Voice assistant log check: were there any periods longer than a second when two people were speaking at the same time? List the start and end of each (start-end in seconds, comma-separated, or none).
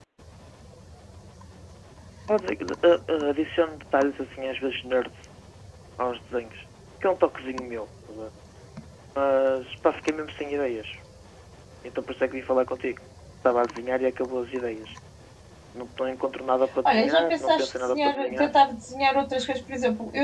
16.9-18.5